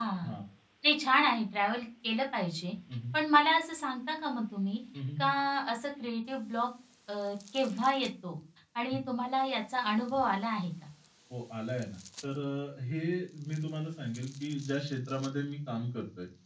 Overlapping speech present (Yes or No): No